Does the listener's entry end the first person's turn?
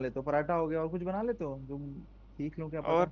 Yes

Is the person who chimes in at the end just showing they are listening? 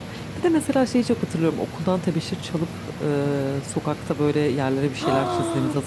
No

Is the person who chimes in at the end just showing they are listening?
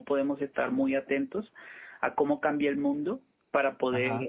Yes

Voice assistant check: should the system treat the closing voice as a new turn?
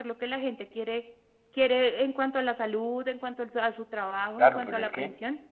Yes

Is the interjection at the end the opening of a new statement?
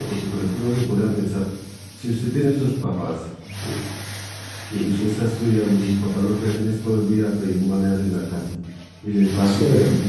No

